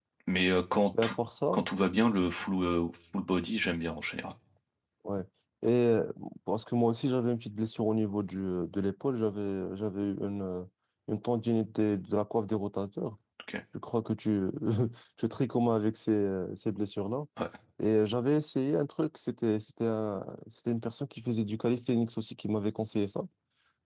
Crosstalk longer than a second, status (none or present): none